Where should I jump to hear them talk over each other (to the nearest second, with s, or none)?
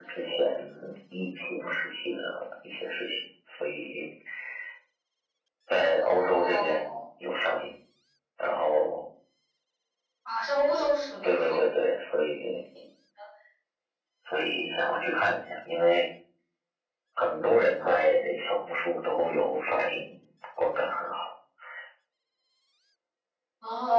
6 s